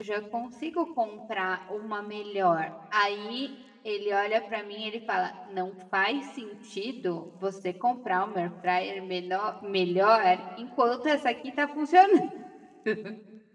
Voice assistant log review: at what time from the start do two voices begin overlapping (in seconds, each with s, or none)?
none